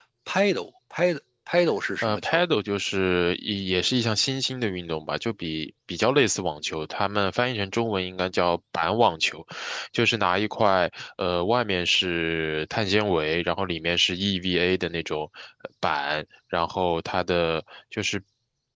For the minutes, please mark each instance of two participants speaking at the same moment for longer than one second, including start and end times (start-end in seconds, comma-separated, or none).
none